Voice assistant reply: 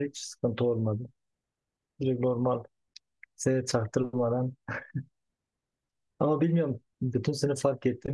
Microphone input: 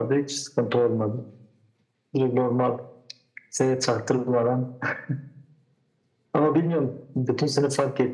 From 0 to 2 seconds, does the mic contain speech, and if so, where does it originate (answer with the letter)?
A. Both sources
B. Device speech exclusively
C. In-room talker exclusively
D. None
B